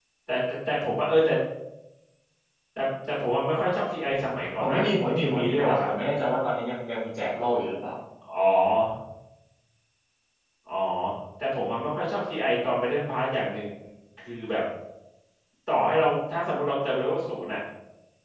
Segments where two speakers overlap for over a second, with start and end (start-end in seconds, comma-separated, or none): 4.6-5.9